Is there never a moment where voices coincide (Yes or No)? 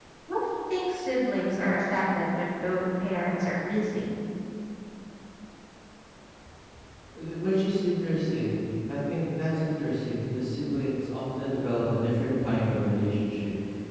Yes